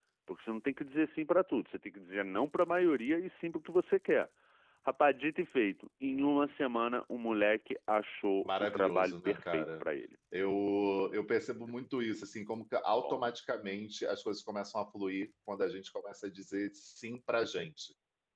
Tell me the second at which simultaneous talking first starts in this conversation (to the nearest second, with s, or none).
8 s